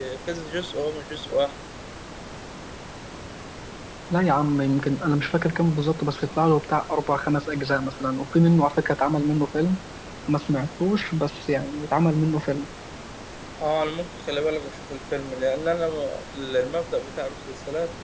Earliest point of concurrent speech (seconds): none

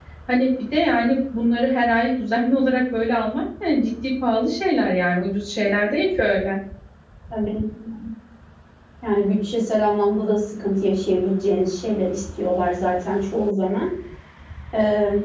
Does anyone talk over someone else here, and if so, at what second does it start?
none

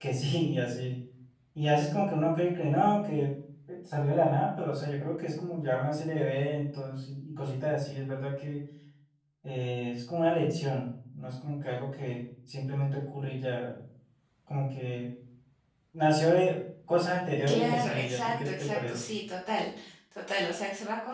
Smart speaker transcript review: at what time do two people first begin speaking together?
17.5 s

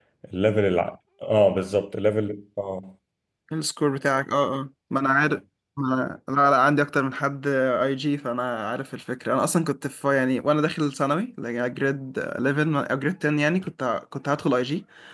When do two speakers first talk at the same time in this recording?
none

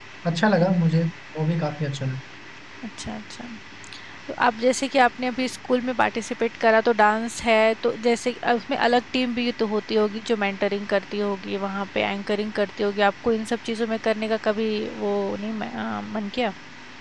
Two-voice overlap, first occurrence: none

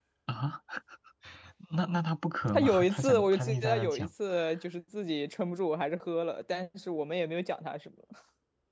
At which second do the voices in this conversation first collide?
2.5 s

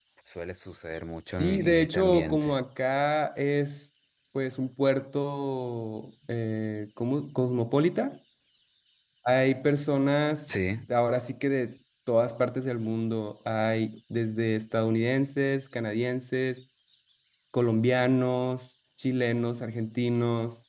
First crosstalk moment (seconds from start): 1.4 s

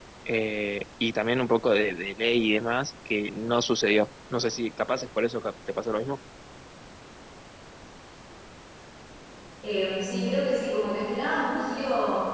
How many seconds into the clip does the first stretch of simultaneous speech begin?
none

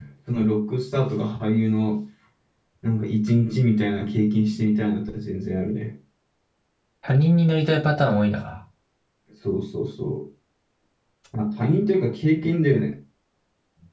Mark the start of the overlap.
none

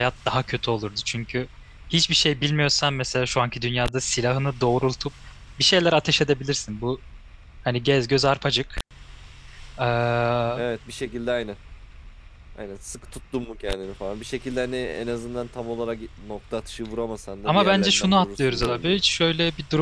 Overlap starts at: 17.4 s

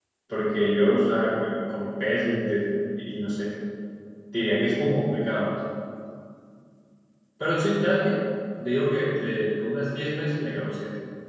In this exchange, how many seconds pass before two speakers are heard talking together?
none

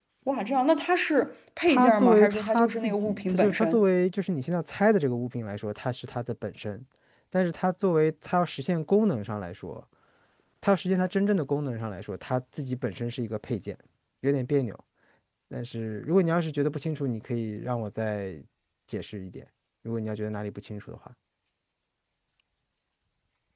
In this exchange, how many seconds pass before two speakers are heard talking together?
1.7 s

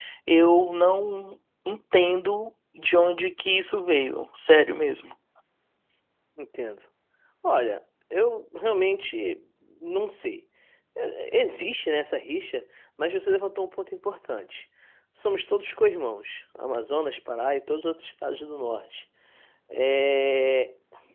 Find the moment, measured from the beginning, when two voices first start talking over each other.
none

